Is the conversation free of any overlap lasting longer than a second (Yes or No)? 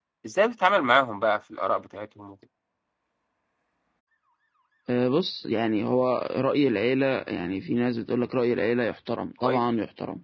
Yes